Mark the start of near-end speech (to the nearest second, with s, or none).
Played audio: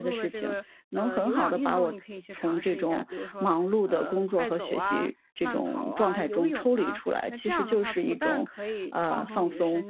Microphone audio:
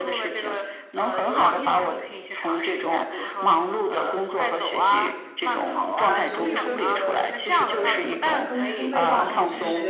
6 s